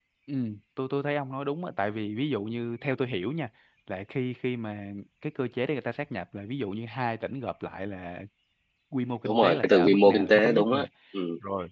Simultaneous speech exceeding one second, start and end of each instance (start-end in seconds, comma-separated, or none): 9.2-10.9